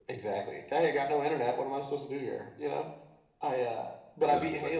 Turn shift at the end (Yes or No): No